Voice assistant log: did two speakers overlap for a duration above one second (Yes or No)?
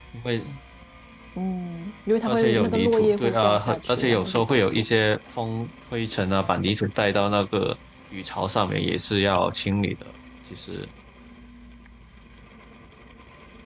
Yes